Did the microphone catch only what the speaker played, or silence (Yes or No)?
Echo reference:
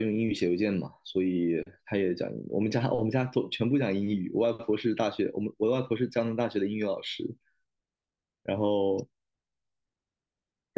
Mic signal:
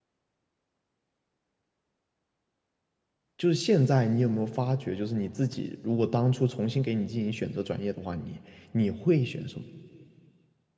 No